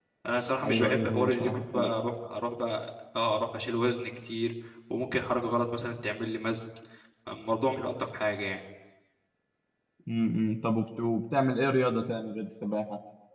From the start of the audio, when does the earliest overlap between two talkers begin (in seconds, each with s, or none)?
0.6 s